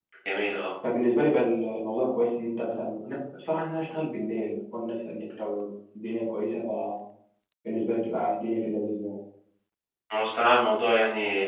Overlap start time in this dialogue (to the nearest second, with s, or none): none